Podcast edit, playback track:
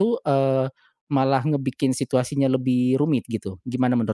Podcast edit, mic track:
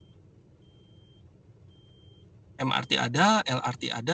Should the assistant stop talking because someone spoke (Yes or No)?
Yes